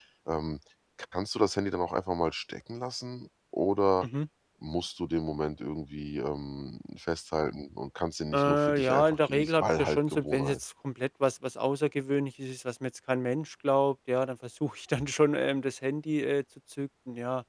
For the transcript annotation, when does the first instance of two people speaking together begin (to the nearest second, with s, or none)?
8 s